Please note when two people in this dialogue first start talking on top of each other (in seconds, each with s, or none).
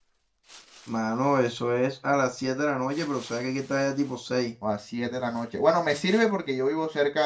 none